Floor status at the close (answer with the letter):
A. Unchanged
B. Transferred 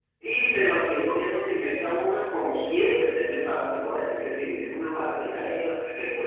A